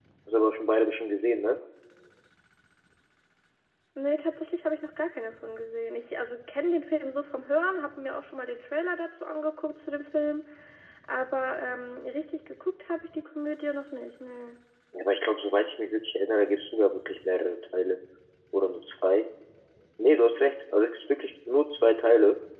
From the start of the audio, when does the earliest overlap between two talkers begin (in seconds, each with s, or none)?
none